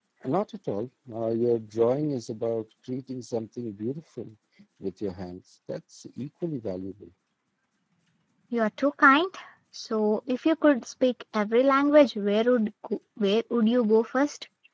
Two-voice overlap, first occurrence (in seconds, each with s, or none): none